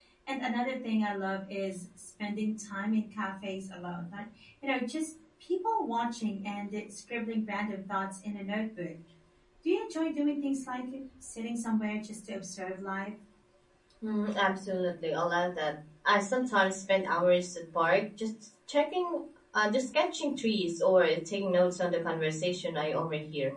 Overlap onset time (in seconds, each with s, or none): none